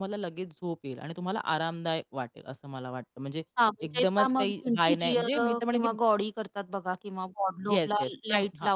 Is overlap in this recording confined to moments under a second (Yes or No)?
No